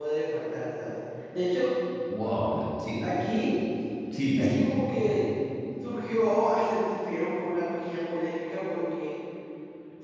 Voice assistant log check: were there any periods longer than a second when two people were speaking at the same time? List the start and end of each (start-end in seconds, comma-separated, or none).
none